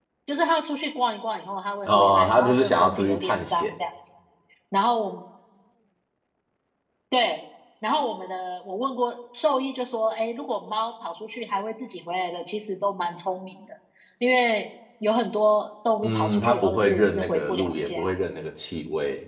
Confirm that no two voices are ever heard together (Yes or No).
No